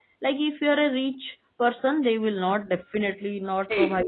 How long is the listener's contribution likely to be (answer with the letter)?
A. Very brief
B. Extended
B